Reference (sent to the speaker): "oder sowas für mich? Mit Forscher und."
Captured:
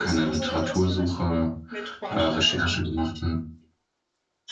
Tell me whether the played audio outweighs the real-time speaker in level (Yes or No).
No